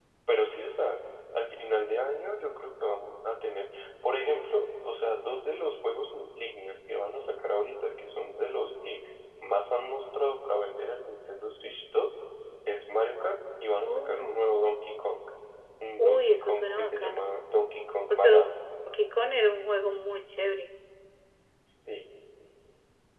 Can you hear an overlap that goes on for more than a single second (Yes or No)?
Yes